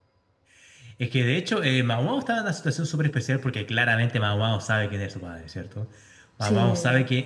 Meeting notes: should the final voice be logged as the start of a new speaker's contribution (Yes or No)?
No